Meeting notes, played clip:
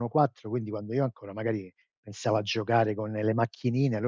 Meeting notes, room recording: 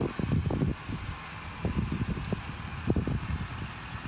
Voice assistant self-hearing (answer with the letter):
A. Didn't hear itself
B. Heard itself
A